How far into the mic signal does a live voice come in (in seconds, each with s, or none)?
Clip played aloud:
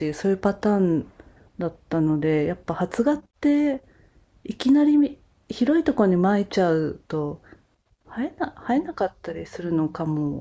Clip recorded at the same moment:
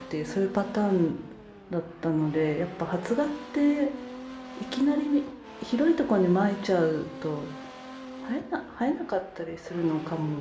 none